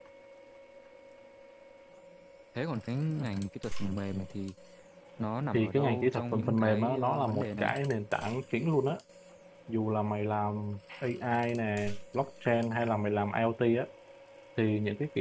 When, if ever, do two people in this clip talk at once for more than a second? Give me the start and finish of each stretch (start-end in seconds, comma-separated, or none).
5.5-7.7